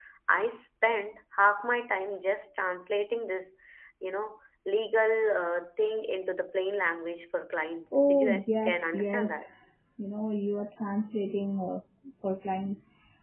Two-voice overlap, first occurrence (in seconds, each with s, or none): 7.9 s